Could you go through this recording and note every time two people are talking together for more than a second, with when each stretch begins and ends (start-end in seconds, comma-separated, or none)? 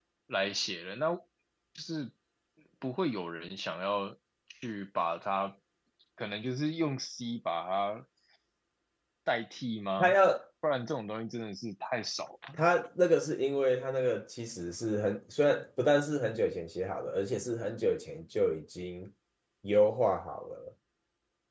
none